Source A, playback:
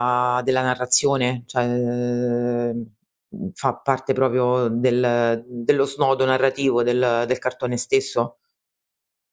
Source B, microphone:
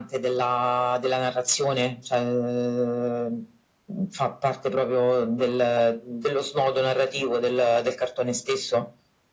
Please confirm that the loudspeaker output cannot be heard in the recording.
No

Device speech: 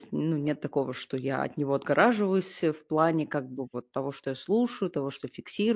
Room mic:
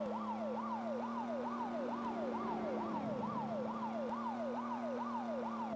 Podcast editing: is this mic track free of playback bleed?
Yes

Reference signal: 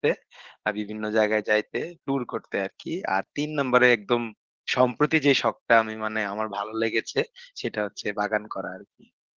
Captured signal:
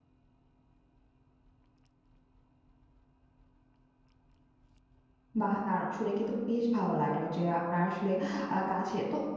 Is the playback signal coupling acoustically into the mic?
No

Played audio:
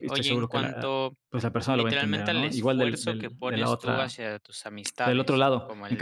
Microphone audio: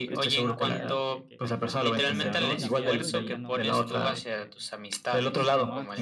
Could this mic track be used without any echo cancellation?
No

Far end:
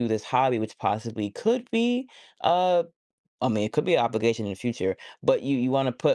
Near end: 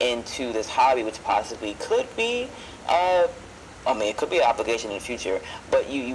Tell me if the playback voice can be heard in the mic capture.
Yes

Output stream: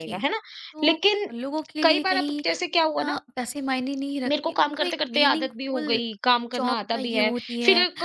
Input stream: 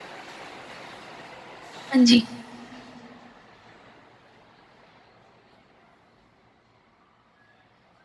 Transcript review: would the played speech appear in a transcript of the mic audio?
No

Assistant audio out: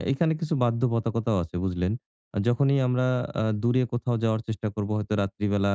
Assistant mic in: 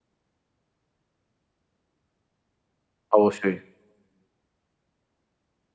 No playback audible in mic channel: Yes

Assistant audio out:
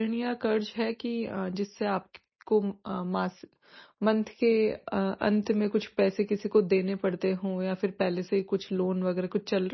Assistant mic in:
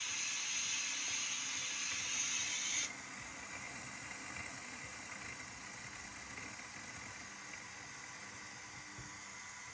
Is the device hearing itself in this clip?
No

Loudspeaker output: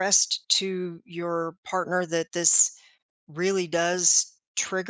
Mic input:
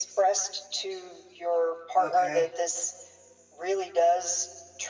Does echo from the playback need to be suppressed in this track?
Yes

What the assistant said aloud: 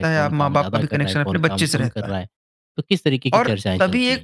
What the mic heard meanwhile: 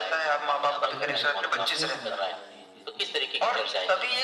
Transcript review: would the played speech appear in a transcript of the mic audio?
Yes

